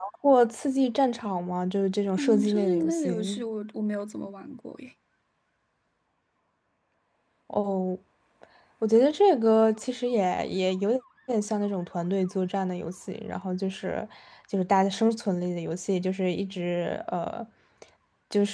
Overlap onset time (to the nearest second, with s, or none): 2 s